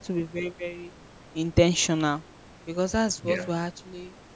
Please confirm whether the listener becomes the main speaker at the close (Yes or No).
No